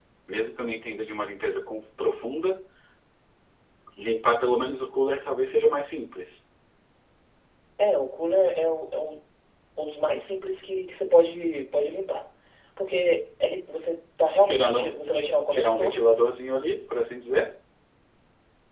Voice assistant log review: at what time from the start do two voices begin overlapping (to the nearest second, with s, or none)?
14 s